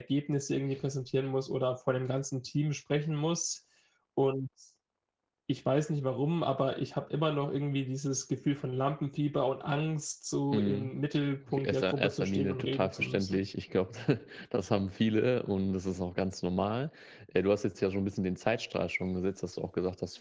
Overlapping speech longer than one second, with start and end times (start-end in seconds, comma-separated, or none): 11.5-13.4